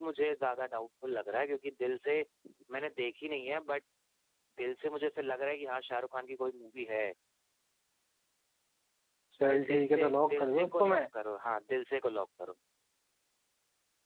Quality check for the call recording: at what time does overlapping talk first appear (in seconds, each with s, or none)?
9.4 s